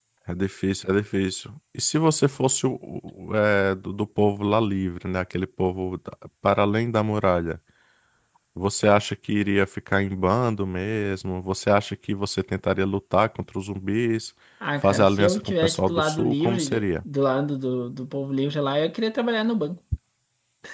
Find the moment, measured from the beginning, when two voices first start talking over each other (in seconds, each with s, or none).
14.8 s